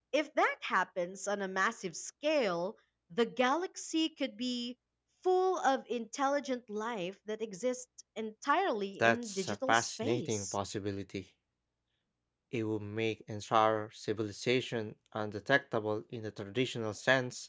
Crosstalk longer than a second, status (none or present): present